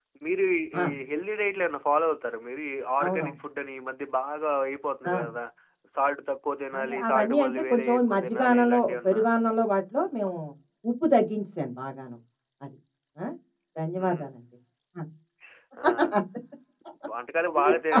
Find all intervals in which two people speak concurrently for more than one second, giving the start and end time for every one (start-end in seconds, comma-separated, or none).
6.8-9.2